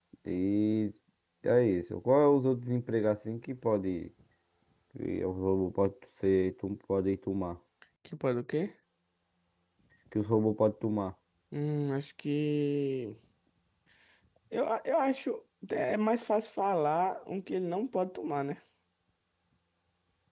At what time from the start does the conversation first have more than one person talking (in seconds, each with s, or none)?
none